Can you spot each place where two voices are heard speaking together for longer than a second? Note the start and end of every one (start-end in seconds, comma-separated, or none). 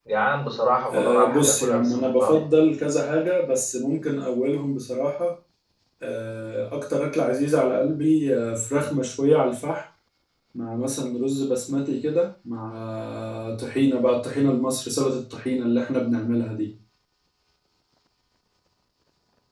0.9-2.4